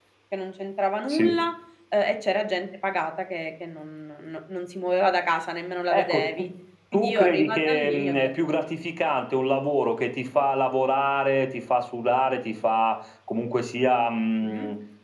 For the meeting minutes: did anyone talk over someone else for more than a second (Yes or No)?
Yes